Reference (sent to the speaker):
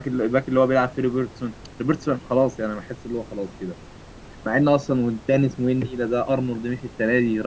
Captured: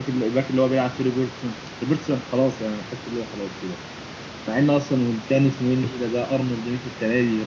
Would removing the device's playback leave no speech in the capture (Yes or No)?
Yes